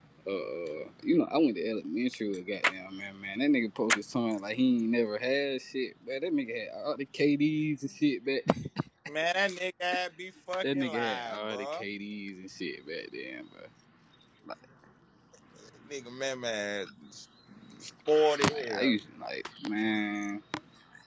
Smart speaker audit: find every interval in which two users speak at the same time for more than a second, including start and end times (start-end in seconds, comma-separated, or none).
10.6-11.8